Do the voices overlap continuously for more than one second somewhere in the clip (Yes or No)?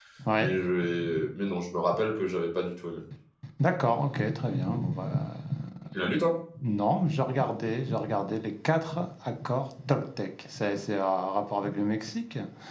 No